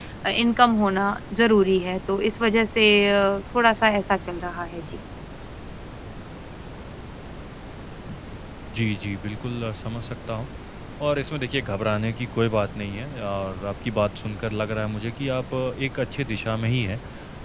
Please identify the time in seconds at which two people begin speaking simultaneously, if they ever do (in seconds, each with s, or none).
none